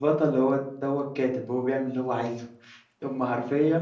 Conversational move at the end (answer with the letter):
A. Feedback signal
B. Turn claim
A